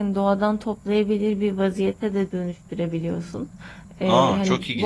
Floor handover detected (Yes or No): Yes